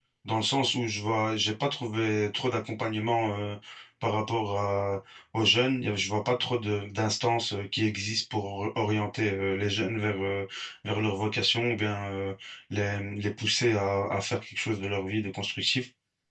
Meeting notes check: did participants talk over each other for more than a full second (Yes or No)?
No